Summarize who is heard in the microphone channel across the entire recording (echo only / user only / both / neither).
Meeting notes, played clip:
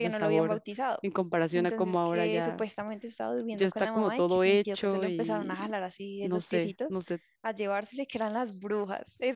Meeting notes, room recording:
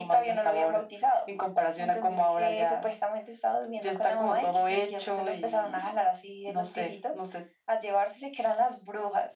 echo only